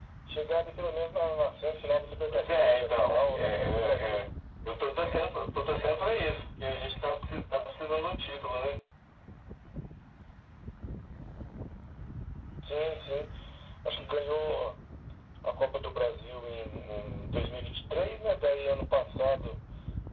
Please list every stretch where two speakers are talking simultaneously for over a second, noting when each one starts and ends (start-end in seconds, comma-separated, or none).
2.3-4.2